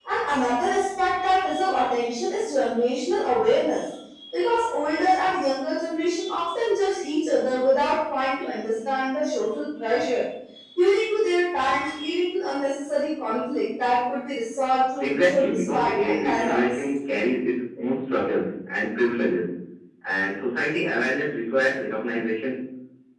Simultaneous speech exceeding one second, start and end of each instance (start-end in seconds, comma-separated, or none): 15.0-16.7